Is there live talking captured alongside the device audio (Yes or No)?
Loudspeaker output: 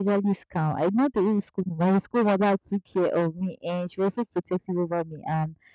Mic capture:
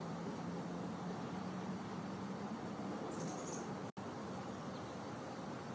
No